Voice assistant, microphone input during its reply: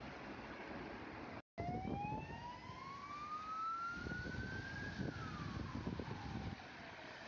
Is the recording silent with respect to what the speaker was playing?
Yes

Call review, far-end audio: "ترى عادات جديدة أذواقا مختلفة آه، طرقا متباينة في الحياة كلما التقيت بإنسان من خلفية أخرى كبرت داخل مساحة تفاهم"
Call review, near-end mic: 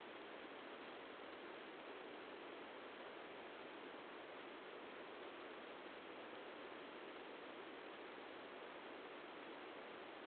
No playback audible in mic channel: Yes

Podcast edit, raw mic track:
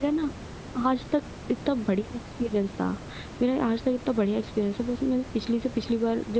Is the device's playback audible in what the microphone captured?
No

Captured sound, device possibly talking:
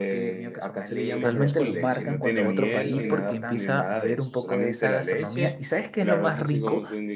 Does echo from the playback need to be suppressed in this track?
Yes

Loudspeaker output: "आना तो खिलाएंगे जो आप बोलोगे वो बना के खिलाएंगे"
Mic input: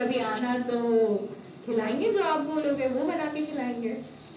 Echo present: Yes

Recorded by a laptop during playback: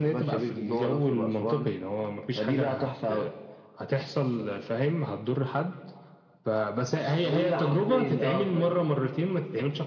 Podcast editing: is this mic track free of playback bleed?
No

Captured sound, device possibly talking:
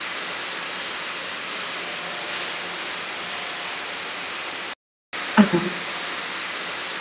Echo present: No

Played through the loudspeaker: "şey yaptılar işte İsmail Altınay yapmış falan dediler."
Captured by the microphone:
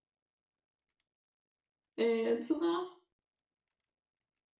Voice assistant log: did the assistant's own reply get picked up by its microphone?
No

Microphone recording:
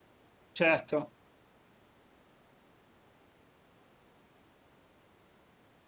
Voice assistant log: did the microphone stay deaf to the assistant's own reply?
Yes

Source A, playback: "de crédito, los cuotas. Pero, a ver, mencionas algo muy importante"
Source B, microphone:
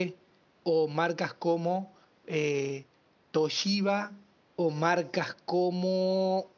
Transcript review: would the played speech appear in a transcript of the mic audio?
No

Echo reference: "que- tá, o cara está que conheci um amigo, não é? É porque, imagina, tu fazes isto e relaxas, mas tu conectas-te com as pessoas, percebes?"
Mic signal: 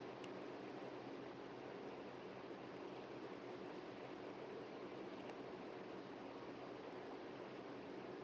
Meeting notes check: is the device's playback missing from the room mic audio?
Yes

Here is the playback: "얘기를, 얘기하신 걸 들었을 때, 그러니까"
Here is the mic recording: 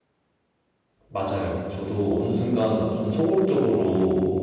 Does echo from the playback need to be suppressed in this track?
No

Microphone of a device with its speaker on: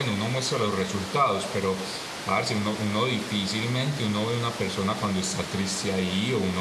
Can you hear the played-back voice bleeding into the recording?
No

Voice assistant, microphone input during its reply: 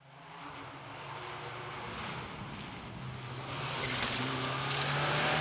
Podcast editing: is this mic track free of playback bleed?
Yes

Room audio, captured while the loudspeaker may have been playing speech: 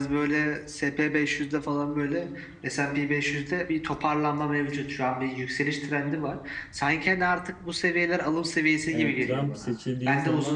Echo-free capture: No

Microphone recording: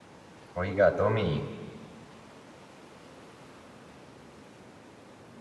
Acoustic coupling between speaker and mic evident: No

